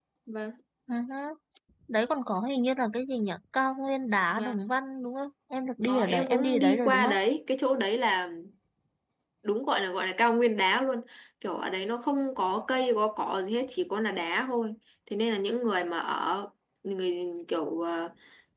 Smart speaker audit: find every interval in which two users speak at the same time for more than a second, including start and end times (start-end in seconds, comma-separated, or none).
5.9-7.2